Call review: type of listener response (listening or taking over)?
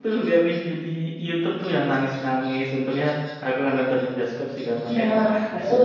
taking over